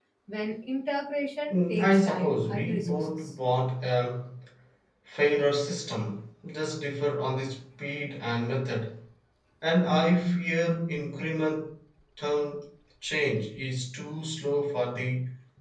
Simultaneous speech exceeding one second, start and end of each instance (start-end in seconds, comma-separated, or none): 1.5-3.3